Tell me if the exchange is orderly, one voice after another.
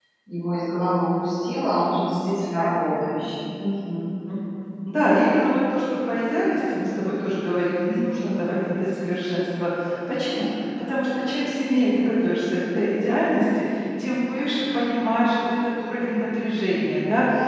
Yes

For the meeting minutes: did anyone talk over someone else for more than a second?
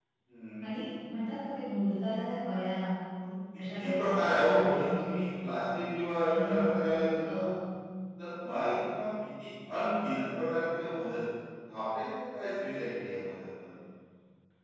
Yes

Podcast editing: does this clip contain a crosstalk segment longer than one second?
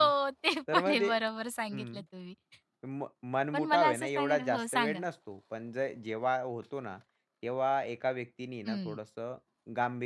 Yes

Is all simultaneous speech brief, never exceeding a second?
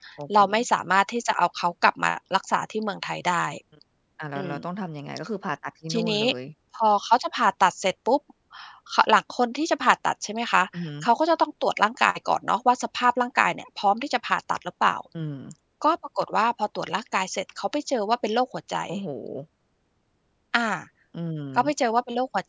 Yes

